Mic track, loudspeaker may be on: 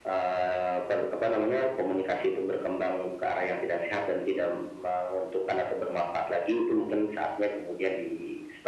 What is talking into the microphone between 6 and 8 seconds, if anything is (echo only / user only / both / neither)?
echo only